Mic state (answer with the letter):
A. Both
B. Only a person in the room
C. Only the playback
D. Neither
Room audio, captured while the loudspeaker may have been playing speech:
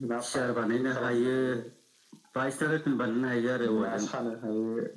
C